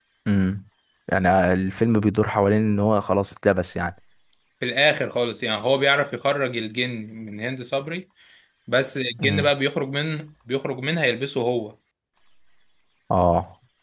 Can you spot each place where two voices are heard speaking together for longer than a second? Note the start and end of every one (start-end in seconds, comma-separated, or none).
none